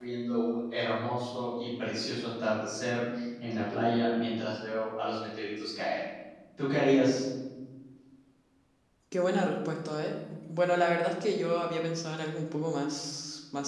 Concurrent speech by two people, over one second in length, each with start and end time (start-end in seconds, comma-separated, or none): none